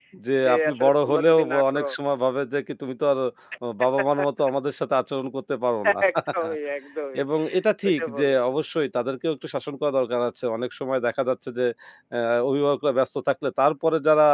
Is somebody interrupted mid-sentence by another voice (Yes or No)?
Yes